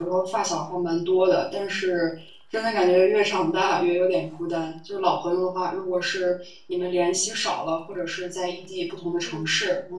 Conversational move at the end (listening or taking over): listening